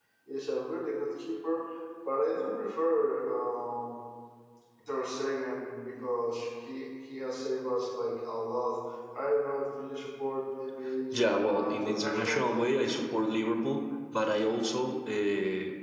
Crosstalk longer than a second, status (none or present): present